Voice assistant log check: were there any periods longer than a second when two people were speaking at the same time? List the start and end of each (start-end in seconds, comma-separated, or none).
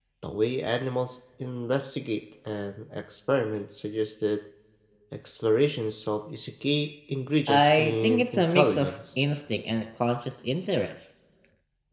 7.5-8.9